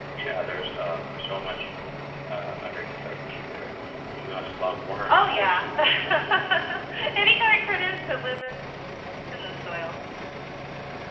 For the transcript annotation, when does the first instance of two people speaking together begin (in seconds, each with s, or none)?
4.9 s